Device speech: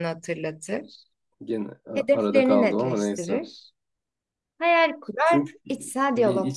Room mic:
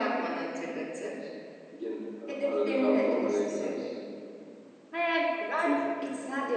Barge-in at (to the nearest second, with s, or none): none